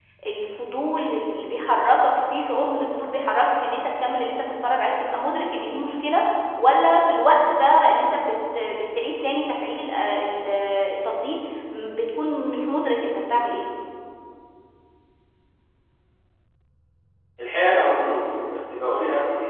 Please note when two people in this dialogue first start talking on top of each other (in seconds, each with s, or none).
none